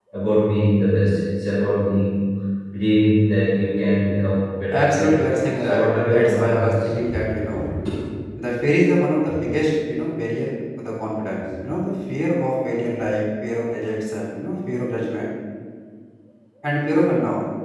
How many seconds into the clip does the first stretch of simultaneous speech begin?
4.7 s

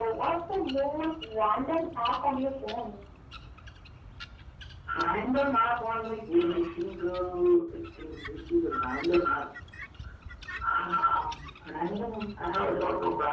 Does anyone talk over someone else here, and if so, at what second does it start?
none

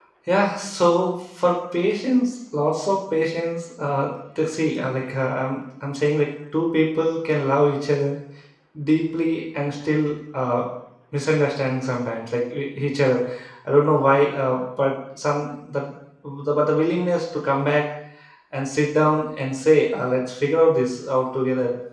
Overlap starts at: none

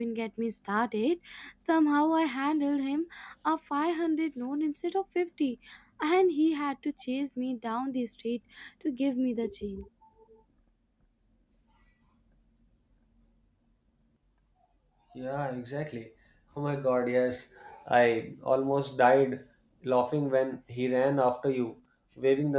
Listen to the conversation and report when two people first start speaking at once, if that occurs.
none

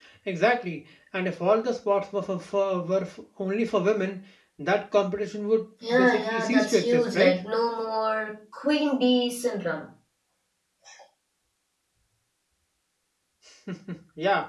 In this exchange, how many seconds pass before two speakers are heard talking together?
5.8 s

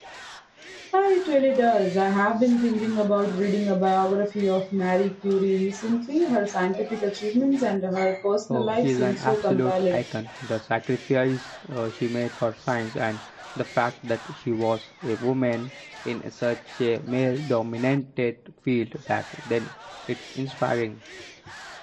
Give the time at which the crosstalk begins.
8.5 s

